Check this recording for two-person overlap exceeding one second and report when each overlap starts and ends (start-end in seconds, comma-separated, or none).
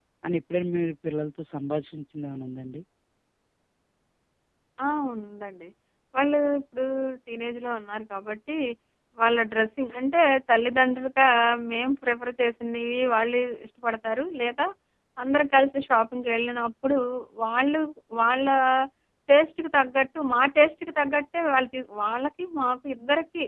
none